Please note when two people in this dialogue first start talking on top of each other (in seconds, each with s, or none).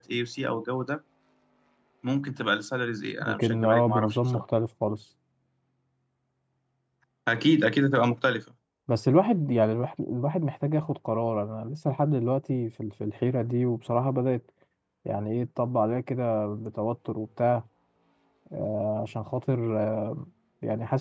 3.2 s